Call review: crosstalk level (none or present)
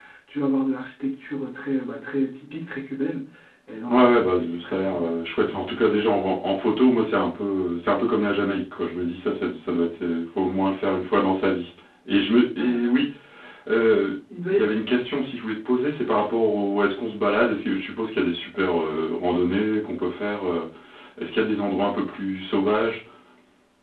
present